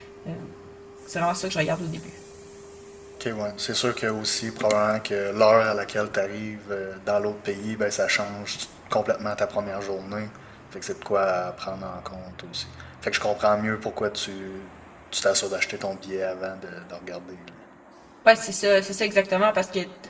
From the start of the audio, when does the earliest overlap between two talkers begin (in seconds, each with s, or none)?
none